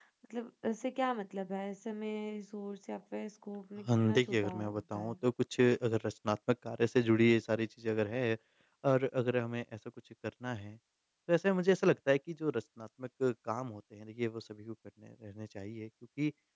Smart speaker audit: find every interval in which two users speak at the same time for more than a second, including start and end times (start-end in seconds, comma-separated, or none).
3.9-5.2